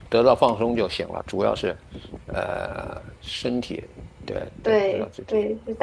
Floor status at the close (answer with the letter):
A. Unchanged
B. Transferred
B